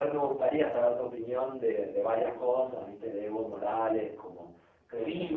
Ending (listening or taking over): taking over